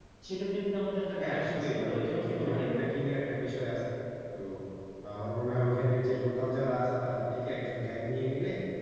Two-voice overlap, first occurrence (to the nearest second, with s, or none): 1 s